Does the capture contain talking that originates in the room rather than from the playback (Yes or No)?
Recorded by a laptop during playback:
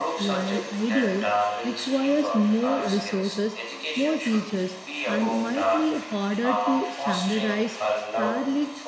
Yes